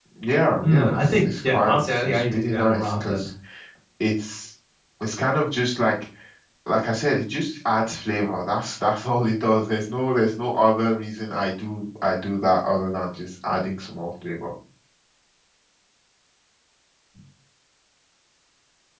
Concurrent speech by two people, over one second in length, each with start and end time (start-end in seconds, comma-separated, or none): 0.6-3.2